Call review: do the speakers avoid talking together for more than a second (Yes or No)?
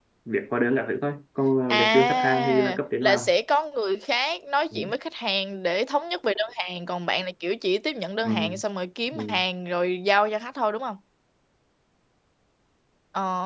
No